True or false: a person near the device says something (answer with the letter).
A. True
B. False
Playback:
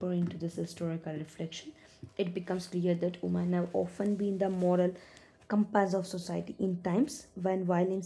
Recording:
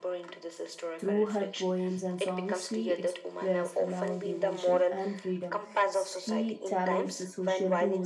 A